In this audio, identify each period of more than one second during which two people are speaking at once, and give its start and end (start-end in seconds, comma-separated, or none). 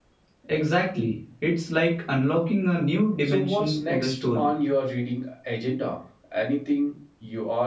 3.2-4.5